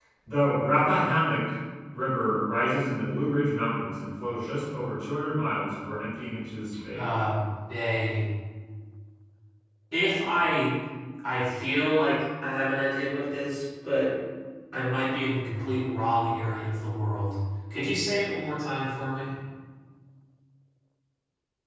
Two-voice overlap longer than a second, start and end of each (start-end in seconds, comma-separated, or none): none